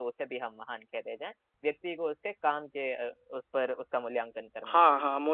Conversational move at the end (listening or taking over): taking over